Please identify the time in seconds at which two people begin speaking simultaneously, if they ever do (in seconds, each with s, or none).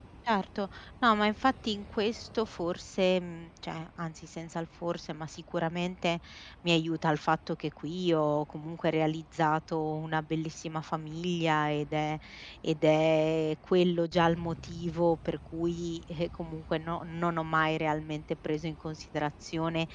none